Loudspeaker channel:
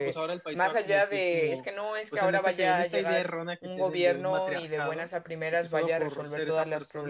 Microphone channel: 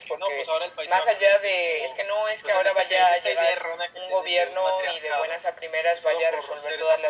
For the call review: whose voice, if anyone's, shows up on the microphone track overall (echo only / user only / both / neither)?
echo only